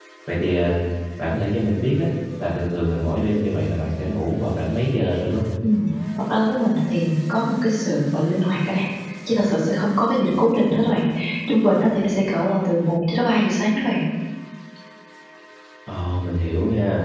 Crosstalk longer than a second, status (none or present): none